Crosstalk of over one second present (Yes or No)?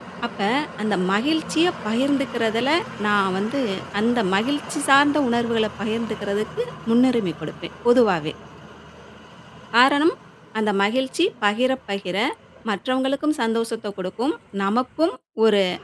No